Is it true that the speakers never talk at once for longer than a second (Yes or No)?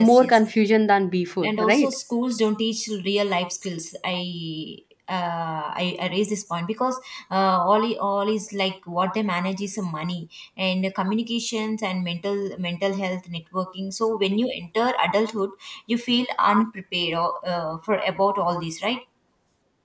Yes